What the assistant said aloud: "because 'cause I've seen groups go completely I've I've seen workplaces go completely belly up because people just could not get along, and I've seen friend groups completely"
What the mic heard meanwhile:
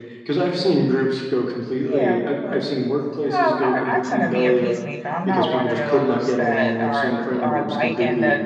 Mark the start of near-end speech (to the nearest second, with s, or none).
2 s